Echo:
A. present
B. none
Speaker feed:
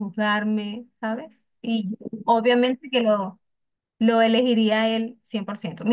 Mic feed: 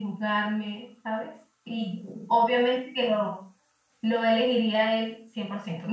A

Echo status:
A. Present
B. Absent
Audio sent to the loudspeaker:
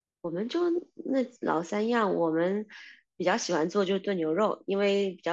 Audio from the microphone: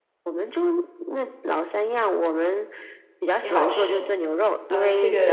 A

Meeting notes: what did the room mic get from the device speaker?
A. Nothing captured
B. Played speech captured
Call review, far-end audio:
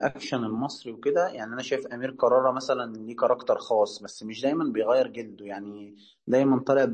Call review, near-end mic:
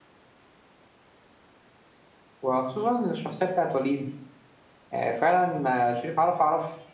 A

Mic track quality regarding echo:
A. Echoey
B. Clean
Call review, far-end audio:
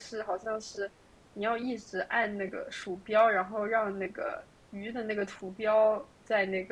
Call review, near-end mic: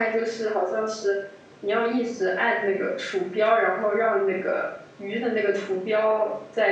A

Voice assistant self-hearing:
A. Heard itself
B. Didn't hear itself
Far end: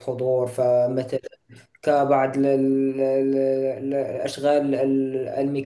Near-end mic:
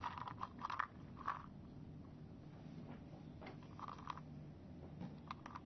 B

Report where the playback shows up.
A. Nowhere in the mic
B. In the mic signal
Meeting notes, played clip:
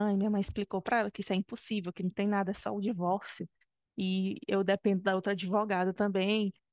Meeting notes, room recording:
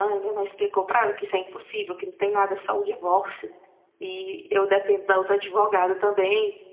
B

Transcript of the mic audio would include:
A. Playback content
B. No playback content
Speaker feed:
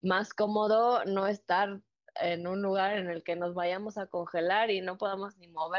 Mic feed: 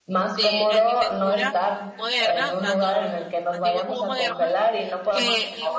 A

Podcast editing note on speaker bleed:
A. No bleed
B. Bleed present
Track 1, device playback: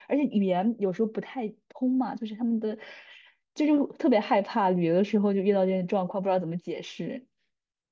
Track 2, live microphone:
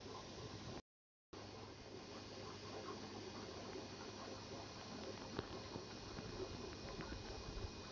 A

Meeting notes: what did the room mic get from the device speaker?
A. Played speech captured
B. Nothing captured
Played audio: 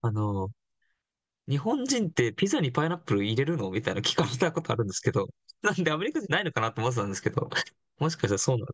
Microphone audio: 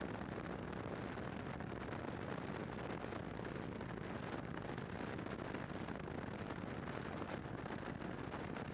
B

